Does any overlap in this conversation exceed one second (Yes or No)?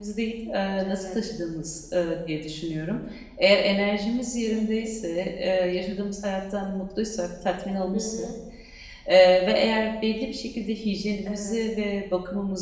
No